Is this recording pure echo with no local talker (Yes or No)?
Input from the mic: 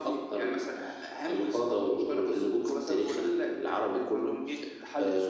Yes